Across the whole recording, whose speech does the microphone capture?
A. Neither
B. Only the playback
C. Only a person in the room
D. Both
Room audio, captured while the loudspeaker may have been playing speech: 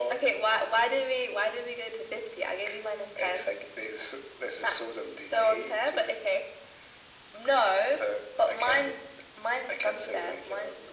B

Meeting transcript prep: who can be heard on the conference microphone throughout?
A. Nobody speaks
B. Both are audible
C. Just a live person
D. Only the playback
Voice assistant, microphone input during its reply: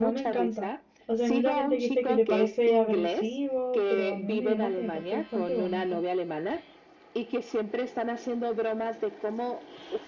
B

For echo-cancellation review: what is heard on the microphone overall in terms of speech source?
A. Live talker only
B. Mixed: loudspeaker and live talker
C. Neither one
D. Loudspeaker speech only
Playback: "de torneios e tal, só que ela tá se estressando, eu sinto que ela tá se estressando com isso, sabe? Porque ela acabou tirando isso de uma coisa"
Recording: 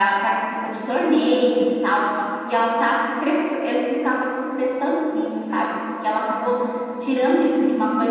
D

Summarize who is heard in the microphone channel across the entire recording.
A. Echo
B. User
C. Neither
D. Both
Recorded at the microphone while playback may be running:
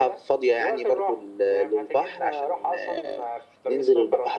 A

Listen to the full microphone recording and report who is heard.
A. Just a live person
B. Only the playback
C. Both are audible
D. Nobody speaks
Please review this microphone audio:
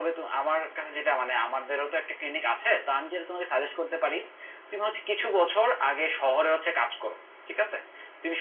B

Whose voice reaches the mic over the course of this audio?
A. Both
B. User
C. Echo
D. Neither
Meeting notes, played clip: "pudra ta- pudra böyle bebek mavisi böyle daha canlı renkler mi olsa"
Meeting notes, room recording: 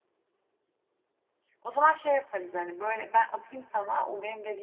B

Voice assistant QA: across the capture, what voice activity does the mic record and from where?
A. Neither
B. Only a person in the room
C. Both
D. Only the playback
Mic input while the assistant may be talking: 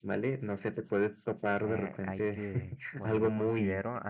C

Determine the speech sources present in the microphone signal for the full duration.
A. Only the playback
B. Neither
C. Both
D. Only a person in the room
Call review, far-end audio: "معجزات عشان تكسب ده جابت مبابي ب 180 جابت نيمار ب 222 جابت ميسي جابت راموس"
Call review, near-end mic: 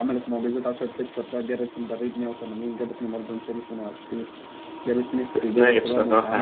C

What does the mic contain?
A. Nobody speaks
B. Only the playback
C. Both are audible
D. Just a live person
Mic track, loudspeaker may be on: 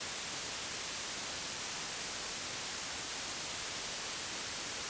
A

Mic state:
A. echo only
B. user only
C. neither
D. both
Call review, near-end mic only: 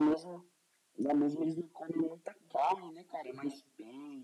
A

